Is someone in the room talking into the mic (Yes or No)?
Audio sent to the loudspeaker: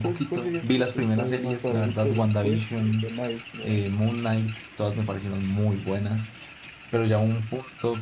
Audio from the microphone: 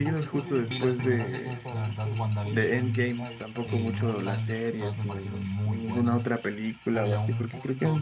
Yes